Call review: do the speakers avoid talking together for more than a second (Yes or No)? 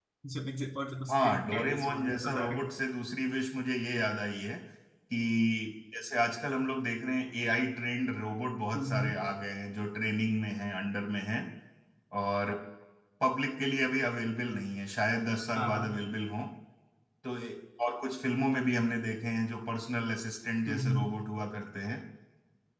No